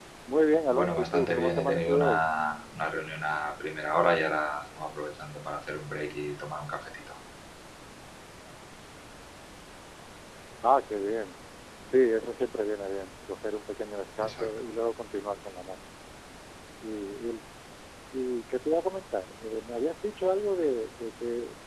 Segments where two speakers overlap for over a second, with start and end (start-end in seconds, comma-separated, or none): 0.7-2.2